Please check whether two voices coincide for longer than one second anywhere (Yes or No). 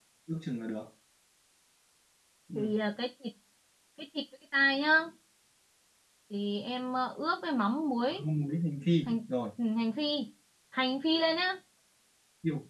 No